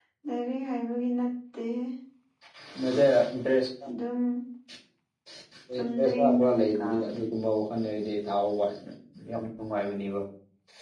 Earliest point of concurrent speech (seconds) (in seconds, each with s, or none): 5.7 s